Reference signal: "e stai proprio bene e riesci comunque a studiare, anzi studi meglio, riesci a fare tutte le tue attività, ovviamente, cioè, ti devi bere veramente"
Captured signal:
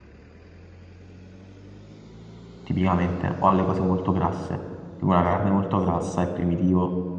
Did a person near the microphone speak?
Yes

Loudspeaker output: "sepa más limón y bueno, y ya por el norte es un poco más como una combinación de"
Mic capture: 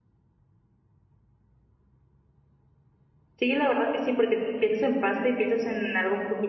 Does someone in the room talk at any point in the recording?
Yes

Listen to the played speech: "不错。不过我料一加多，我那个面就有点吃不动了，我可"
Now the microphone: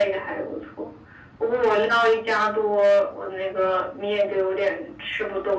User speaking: No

